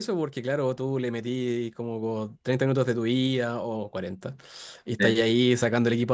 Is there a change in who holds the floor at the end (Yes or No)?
No